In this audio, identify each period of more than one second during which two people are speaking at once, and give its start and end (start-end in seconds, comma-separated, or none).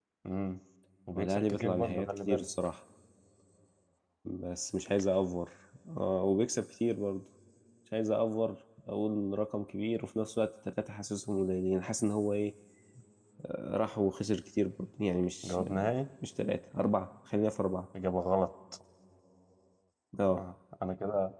1.2-2.5